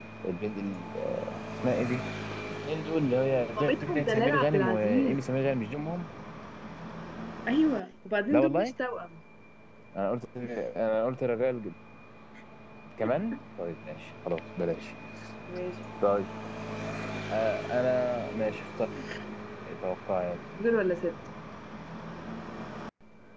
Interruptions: present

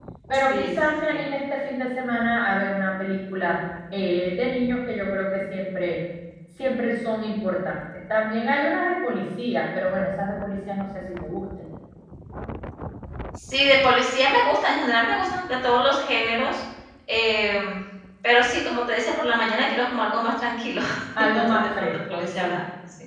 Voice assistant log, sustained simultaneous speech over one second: present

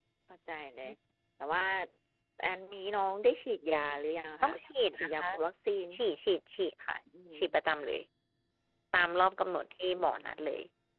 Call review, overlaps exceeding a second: none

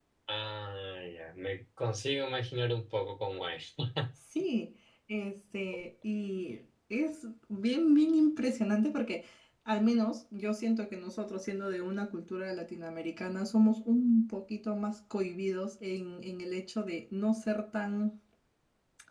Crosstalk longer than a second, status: none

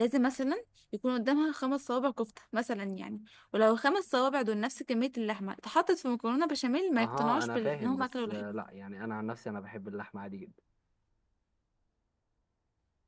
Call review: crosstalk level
present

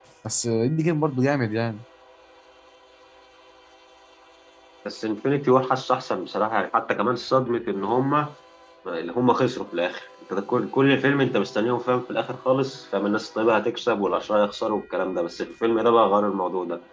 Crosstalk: none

